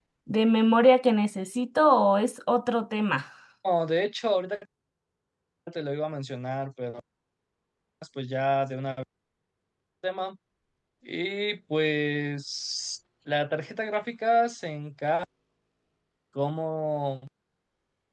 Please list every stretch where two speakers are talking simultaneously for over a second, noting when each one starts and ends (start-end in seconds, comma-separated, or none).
none